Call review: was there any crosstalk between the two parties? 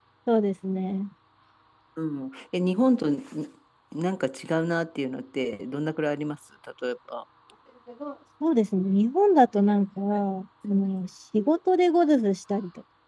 No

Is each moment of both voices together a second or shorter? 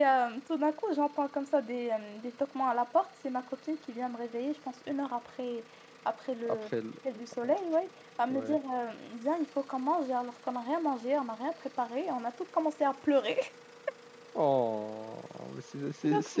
Yes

